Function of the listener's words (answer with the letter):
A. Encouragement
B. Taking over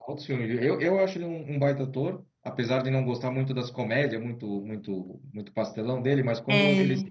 A